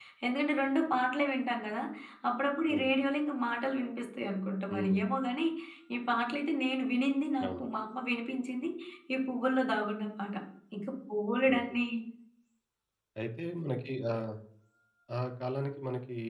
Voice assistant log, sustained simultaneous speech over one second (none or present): none